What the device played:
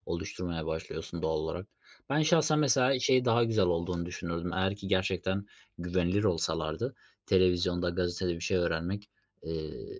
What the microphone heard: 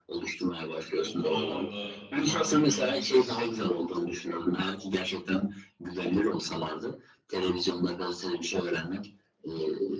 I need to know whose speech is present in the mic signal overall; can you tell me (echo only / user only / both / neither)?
both